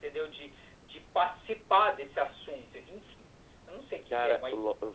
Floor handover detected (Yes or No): Yes